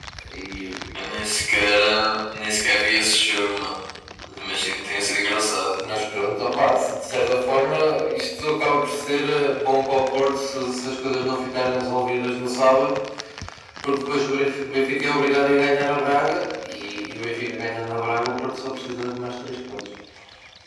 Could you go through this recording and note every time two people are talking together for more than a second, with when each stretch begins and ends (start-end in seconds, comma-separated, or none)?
none